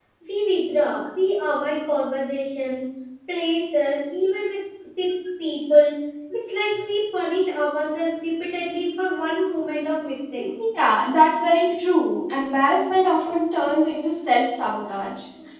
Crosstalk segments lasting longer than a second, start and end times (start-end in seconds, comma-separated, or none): none